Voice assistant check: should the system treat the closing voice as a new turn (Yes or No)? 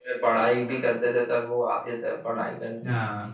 Yes